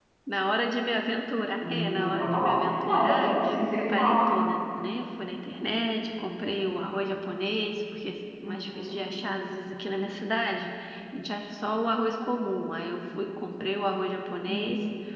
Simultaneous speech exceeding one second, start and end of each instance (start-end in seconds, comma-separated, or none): 1.7-4.3